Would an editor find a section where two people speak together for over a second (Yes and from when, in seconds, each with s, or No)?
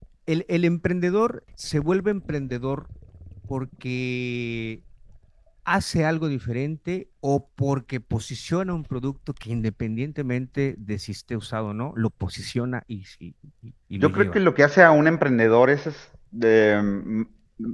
No